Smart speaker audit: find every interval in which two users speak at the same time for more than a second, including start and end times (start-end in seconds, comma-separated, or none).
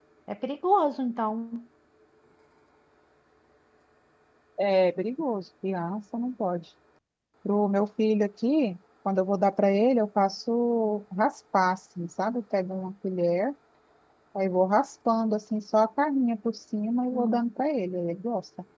none